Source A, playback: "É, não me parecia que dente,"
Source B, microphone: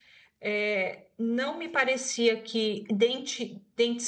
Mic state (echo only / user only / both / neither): echo only